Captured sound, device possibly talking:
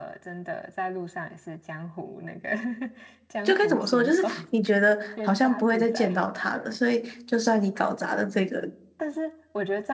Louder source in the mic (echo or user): user